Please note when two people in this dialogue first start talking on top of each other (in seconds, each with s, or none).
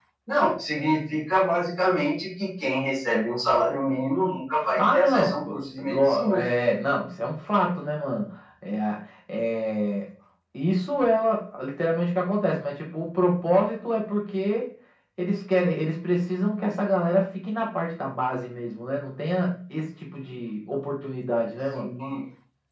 4.8 s